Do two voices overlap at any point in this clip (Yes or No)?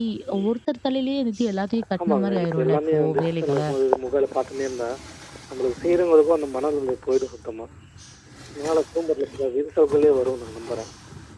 Yes